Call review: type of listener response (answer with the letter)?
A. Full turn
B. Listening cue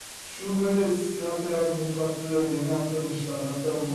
B